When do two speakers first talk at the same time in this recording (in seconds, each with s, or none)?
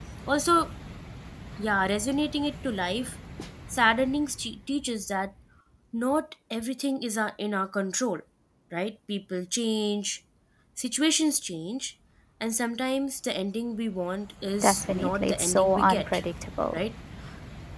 14.6 s